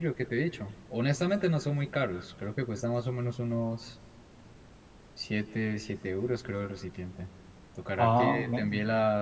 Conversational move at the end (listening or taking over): listening